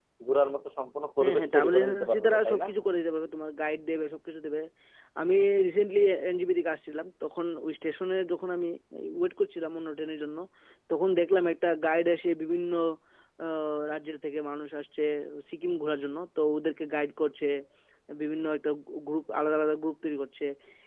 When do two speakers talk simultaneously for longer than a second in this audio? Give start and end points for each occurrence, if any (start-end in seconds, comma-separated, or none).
1.2-2.6